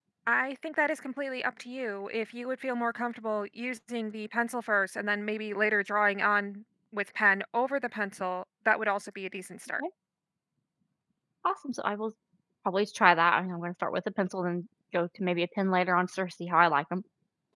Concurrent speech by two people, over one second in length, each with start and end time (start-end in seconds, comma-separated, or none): none